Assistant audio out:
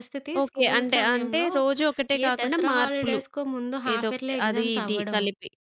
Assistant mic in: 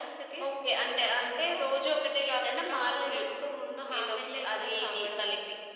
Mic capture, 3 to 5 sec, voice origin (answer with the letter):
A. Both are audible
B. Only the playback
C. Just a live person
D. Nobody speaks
B